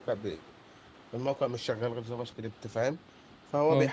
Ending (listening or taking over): listening